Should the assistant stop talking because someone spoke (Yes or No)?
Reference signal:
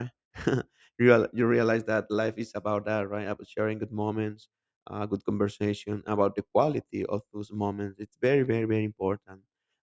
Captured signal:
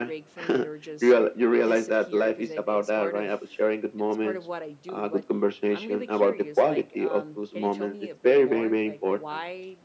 Yes